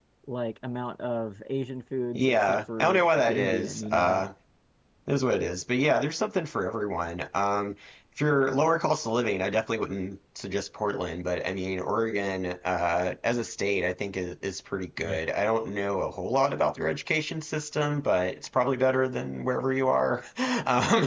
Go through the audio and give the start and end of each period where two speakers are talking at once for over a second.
2.1-4.2

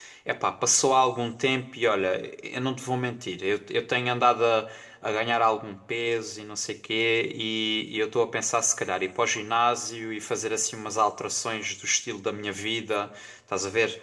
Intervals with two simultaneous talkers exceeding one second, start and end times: none

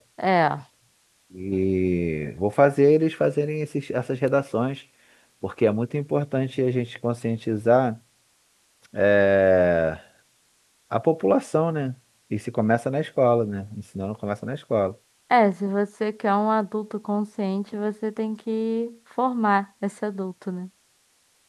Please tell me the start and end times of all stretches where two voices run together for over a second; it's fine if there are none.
none

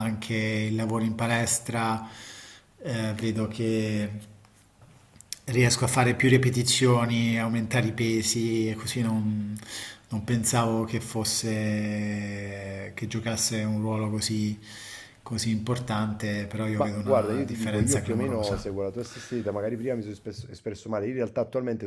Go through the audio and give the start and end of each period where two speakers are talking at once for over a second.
16.8-18.6

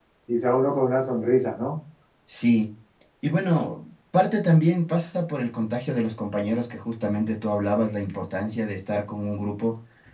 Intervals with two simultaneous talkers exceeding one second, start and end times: none

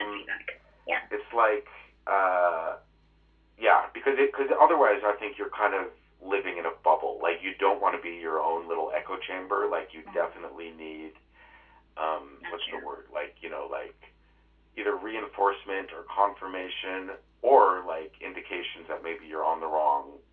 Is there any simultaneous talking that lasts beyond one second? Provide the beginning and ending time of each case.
none

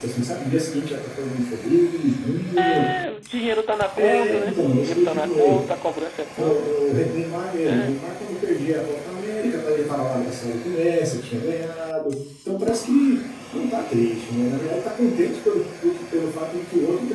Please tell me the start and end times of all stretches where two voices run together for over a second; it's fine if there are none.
4.0-5.6

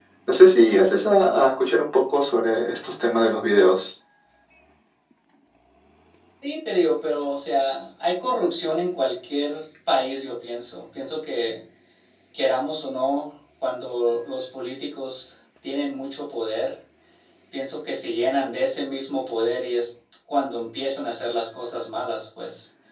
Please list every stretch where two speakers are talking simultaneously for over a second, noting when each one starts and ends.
none

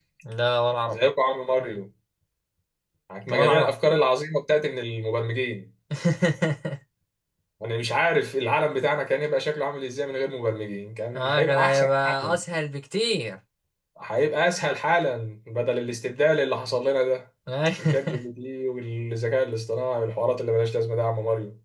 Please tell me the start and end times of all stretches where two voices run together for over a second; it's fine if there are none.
11.1-12.4

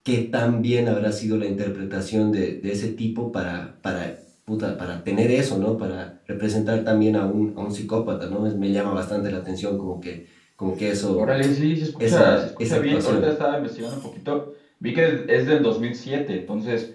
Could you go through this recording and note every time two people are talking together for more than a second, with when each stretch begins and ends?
12.0-13.3

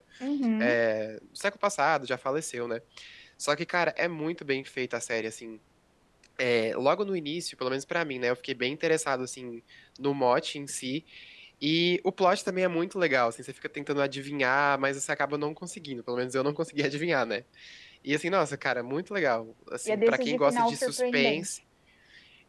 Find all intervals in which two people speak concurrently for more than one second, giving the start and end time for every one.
19.9-21.5

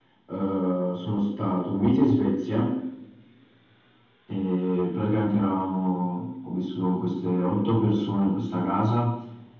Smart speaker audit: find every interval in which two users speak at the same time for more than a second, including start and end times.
none

